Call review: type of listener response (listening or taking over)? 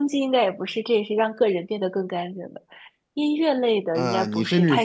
taking over